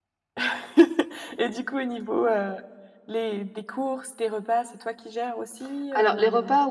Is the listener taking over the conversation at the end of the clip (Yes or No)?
Yes